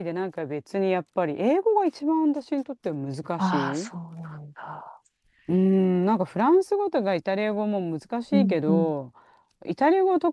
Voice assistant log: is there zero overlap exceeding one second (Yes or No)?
Yes